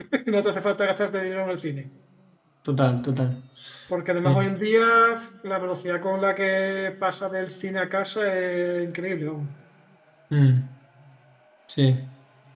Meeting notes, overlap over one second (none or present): none